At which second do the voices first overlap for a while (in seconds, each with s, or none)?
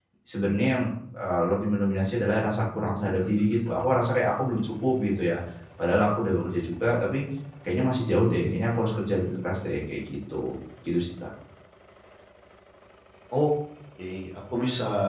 none